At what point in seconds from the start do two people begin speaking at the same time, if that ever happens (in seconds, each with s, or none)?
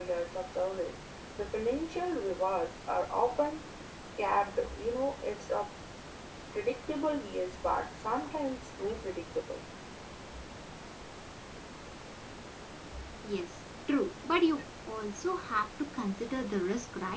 none